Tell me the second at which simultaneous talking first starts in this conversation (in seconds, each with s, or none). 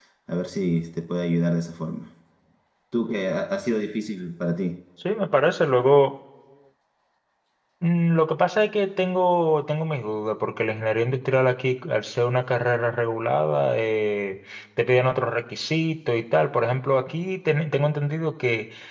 none